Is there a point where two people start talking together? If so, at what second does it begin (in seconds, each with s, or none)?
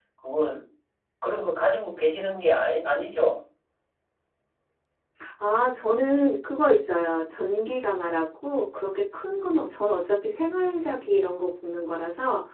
none